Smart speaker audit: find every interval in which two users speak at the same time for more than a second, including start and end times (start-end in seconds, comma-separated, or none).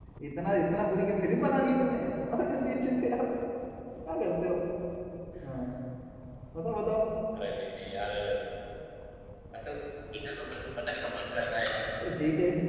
none